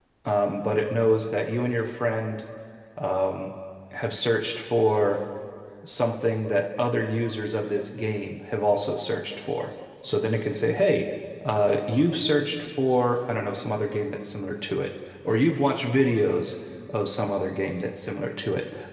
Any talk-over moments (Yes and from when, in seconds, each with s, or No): No